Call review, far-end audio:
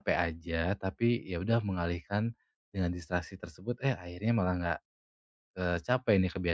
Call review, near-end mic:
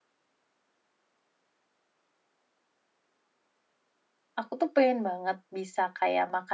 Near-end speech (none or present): present